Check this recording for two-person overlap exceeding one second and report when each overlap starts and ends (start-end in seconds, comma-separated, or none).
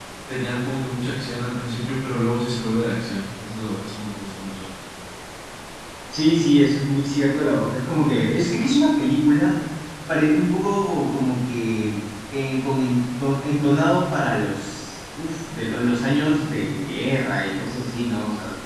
none